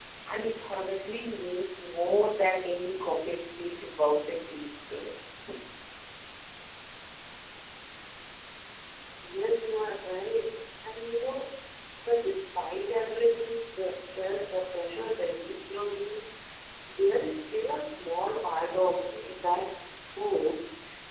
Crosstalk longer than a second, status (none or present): none